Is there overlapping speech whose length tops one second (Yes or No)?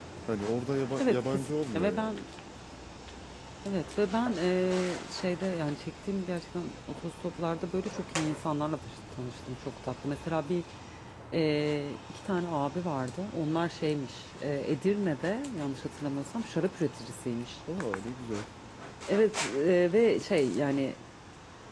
Yes